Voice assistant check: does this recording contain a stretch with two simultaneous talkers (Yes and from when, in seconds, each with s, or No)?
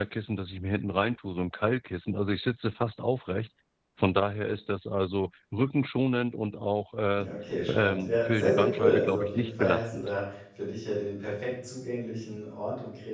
Yes, from 7.7 s